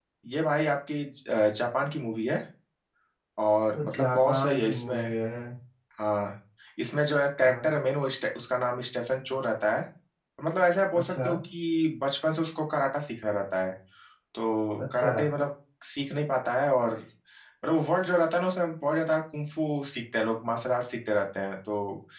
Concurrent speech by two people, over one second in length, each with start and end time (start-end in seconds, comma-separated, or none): 3.8-5.1